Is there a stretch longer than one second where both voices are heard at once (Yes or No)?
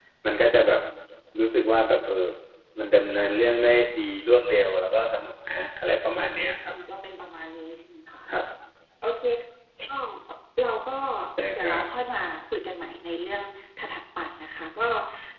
No